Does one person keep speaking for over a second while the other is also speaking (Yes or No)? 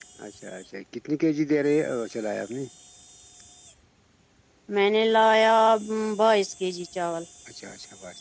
No